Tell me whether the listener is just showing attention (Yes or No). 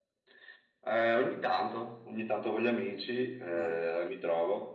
Yes